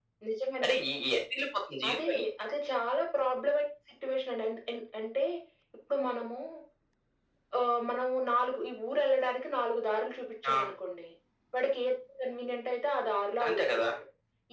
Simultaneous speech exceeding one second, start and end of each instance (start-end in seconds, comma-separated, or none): none